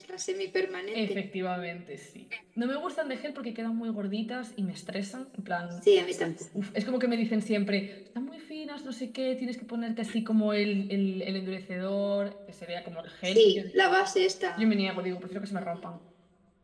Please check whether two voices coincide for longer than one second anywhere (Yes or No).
No